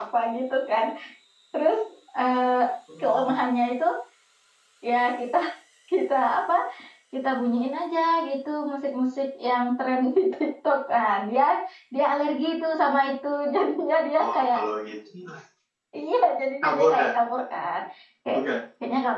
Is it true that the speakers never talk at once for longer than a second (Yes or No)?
Yes